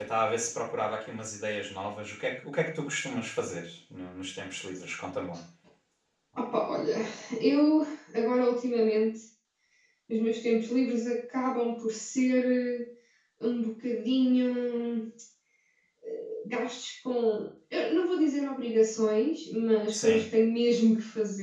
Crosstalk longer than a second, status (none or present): none